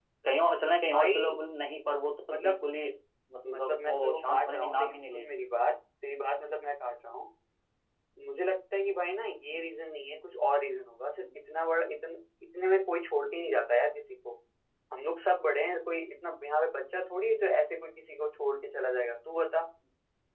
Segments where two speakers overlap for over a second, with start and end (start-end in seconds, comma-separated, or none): 3.5-5.3